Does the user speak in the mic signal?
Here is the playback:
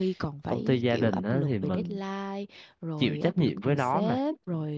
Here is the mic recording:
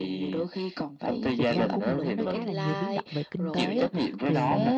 Yes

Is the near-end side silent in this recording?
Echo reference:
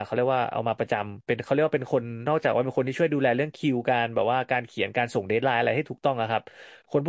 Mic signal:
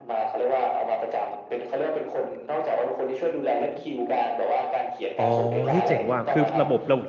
No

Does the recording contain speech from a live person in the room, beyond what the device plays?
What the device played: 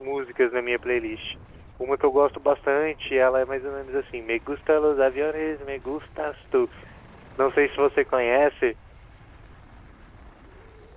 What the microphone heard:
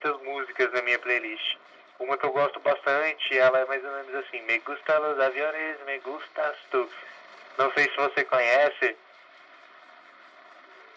No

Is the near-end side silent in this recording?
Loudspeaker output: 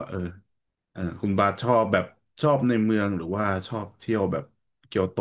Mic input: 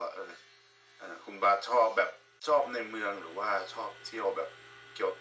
Yes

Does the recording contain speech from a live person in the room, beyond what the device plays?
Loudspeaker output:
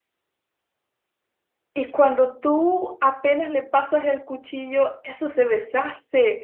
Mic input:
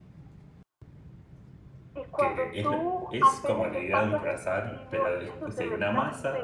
Yes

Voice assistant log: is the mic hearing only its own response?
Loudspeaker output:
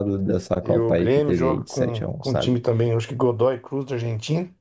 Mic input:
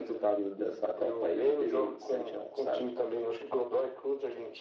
Yes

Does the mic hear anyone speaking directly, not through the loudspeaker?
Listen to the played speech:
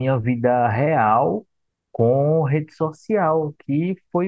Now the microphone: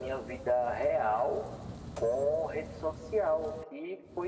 No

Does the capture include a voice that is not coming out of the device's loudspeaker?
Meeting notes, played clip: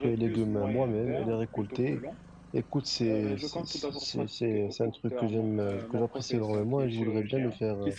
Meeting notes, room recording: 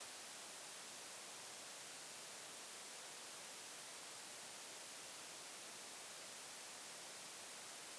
No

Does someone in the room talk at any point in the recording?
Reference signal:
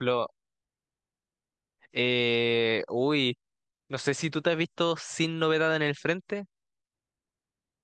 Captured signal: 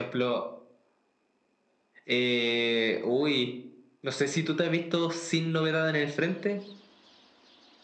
No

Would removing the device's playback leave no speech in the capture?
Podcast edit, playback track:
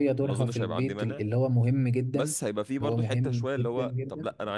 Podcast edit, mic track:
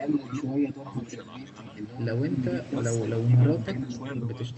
No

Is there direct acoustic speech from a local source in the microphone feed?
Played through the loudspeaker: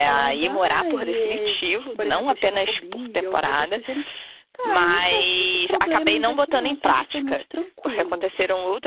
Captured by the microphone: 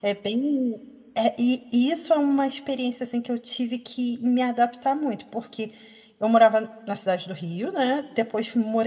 Yes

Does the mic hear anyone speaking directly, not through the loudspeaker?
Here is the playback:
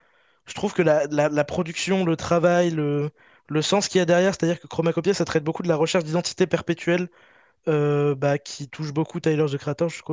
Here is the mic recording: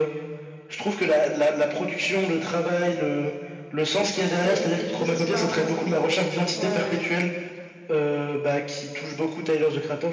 Yes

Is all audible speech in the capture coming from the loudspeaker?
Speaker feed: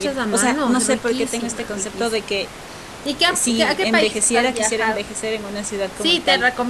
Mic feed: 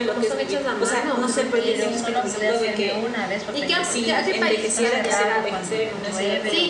No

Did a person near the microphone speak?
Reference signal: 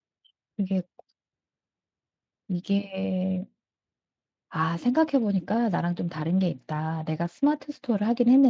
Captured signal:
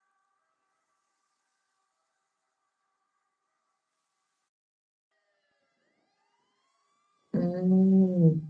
Yes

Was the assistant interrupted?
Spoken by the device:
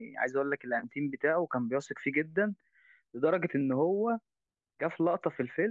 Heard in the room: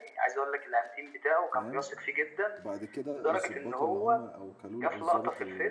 Yes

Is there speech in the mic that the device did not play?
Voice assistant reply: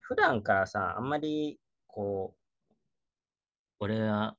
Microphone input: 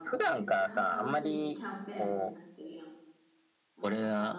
Yes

